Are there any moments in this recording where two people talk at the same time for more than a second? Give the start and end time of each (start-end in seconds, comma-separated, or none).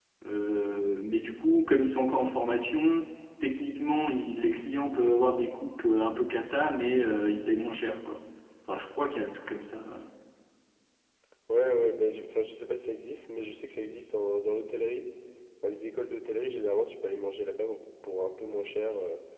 none